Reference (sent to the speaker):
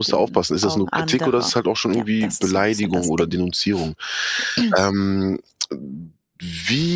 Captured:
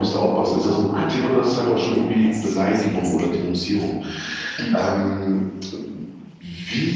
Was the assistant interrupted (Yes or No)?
No